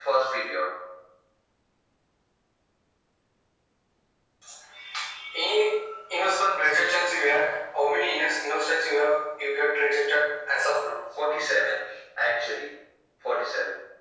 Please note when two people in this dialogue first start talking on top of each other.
none

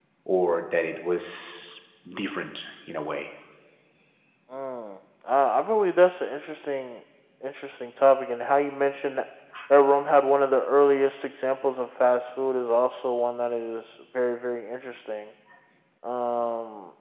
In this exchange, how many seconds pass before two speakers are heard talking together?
none

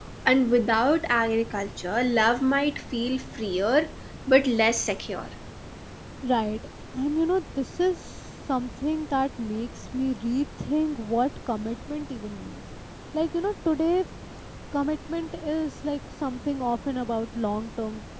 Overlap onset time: none

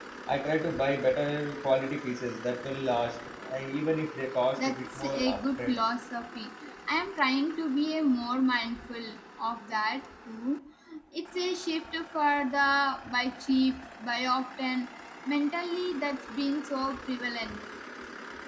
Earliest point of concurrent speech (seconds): 4.6 s

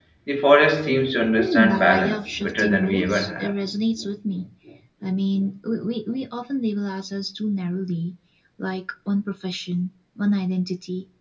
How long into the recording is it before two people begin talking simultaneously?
1.3 s

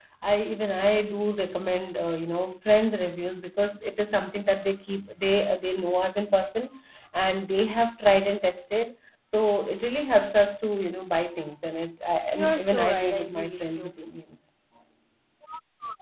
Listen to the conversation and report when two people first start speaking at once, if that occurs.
12.3 s

